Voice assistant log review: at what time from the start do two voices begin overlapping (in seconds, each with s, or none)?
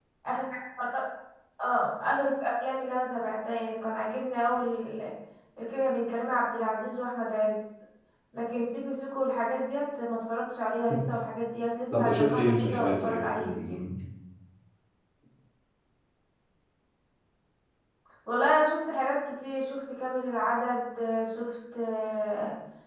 11.9 s